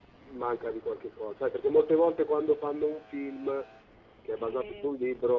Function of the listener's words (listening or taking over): listening